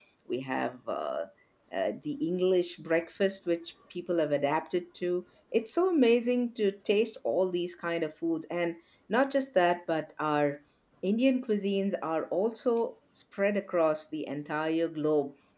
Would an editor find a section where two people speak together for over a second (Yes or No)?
No